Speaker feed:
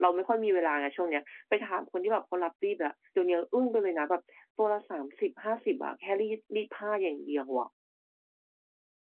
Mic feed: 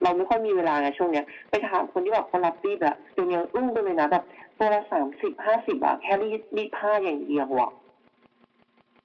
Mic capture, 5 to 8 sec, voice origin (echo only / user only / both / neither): echo only